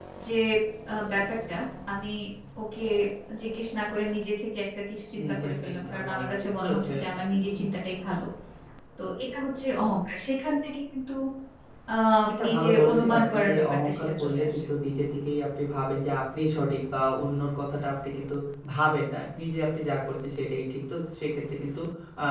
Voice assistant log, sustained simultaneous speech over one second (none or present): present